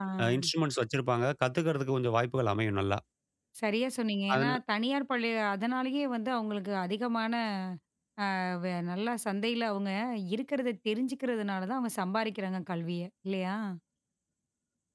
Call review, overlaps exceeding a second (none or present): none